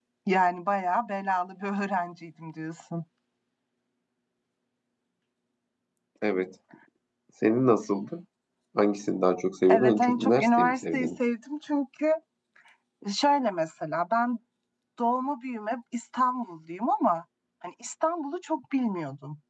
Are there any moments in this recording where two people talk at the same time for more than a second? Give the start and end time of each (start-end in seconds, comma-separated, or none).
9.7-11.1